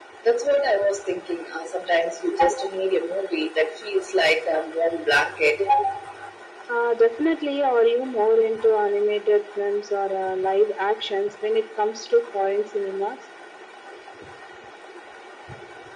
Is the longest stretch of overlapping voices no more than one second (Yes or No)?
Yes